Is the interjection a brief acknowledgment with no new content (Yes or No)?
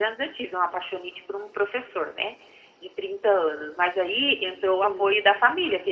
Yes